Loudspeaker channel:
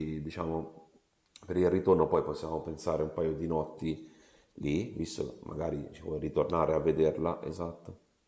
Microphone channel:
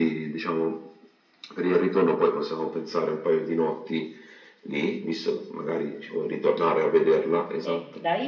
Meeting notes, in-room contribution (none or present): present